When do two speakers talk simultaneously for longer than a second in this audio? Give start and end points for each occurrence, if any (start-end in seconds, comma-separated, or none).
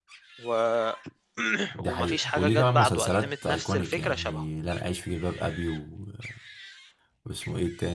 1.9-4.4